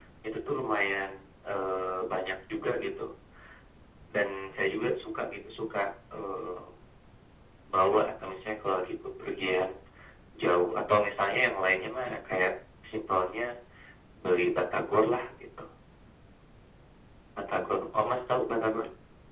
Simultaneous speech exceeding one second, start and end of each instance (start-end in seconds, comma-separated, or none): none